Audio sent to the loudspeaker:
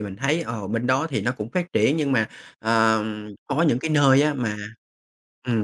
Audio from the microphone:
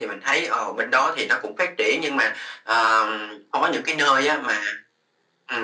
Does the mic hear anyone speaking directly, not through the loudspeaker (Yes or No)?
No